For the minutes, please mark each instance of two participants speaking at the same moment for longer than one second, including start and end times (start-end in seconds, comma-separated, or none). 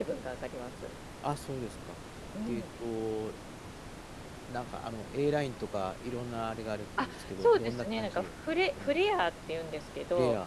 7.0-8.9